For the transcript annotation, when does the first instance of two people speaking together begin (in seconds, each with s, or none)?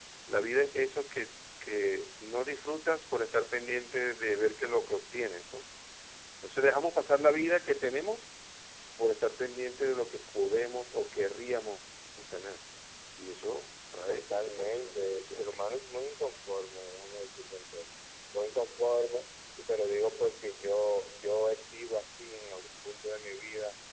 14.1 s